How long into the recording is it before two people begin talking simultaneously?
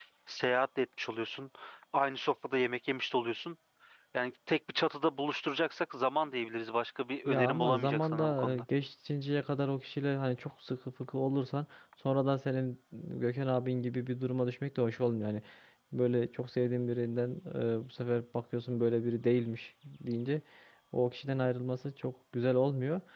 7.3 s

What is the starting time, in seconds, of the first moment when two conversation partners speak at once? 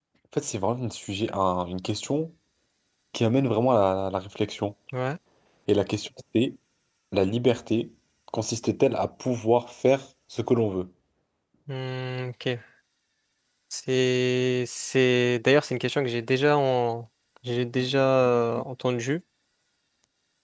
none

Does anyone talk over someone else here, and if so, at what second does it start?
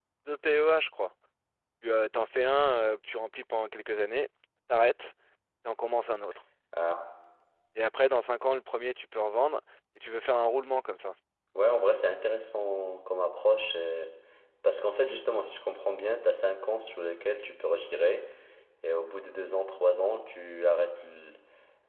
none

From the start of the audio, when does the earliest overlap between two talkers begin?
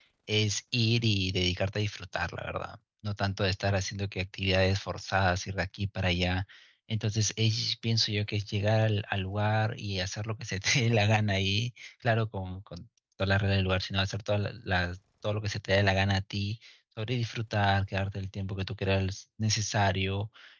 none

